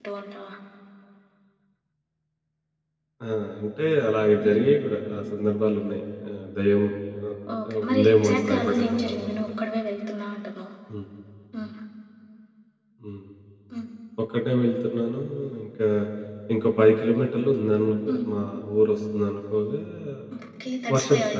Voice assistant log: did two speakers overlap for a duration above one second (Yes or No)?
Yes